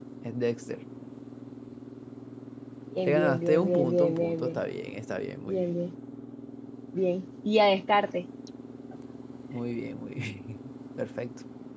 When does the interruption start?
3 s

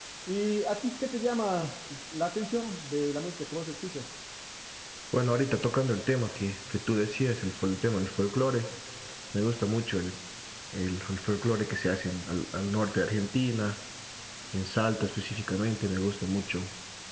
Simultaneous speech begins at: none

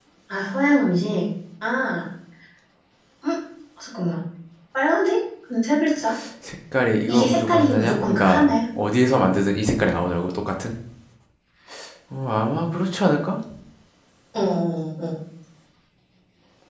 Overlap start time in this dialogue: 7 s

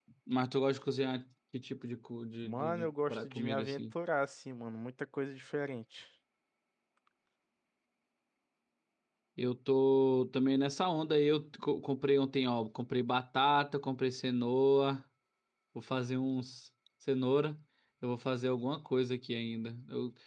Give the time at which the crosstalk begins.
2 s

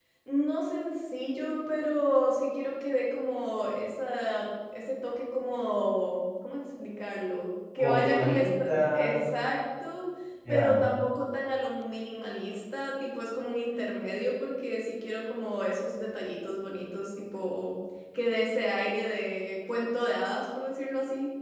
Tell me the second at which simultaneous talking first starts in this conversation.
8 s

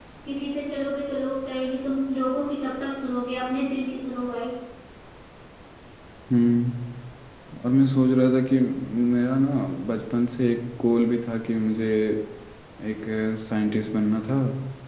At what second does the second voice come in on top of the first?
none

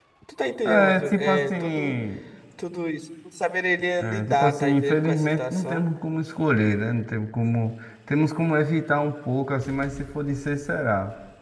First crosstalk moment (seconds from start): 1 s

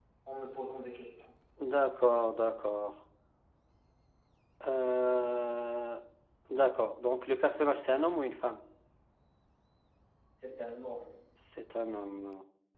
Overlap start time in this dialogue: none

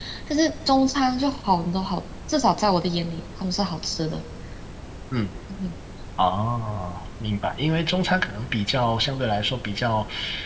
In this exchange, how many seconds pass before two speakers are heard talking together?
none

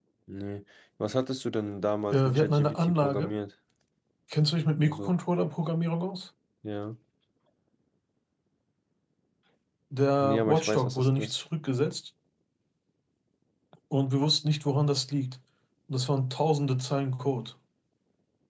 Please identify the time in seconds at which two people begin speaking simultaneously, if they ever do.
2 s

